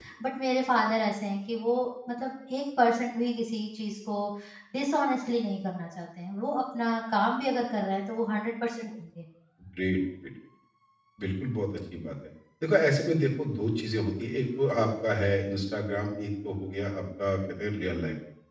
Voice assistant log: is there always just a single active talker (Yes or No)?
Yes